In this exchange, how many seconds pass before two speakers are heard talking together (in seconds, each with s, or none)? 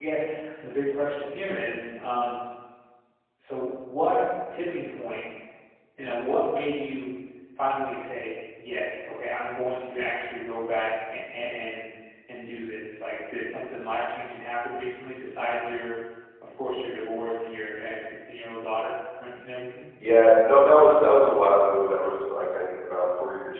none